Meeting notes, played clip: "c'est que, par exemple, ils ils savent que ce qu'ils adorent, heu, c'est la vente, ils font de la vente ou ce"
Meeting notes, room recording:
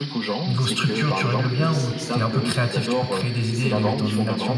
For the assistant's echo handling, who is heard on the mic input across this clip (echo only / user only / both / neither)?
both